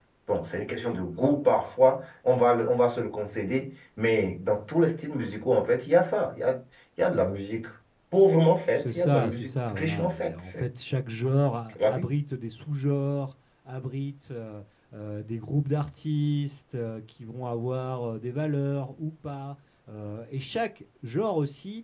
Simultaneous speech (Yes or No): Yes